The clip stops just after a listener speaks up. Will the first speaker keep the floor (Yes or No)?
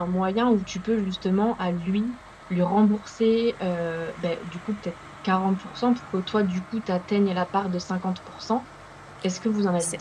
No